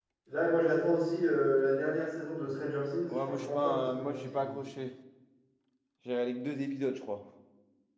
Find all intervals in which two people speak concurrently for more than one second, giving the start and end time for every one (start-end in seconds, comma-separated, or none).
3.1-4.6